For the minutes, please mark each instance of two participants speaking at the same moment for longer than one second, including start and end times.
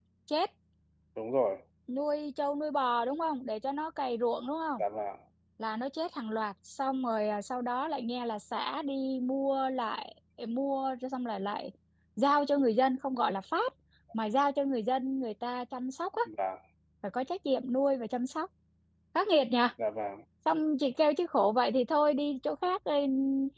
none

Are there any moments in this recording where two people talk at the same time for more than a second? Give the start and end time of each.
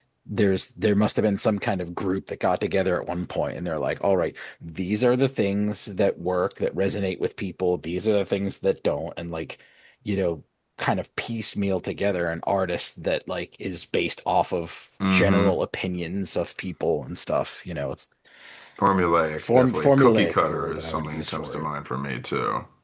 19.4-21.7

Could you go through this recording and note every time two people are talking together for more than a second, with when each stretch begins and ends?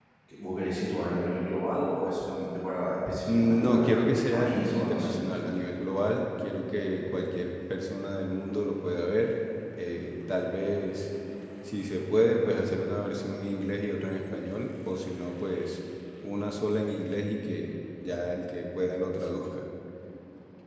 3.3-5.2

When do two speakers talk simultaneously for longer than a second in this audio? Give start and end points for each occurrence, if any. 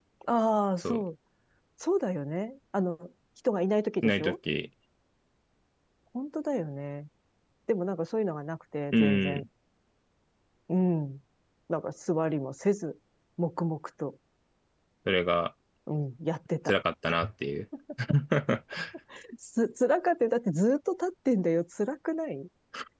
none

